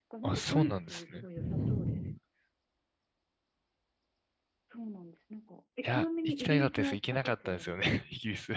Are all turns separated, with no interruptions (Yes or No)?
No